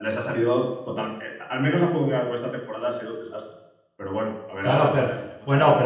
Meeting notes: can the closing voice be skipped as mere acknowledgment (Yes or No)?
No